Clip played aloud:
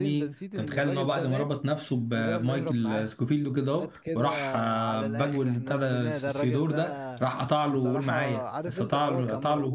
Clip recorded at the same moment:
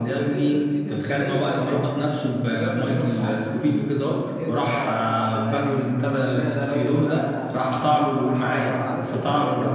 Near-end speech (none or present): none